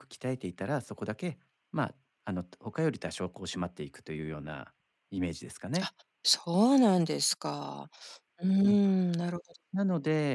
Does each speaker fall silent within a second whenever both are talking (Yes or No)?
Yes